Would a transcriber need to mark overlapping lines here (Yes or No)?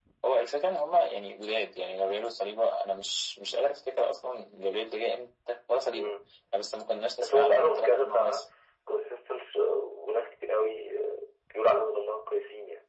Yes